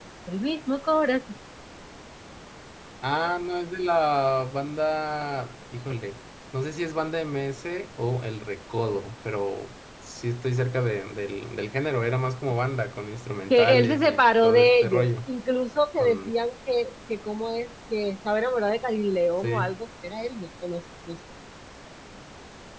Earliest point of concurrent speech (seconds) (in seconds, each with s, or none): 13.5 s